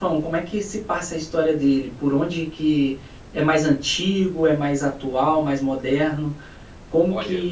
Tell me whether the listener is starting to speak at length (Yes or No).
No